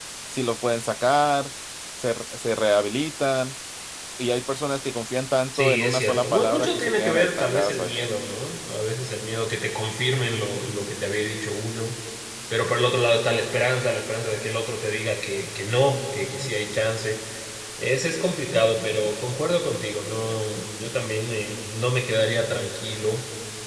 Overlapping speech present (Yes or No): Yes